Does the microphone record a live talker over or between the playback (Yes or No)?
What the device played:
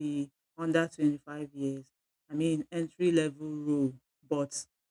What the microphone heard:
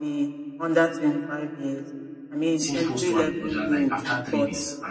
Yes